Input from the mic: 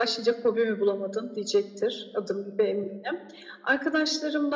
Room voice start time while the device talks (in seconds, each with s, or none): none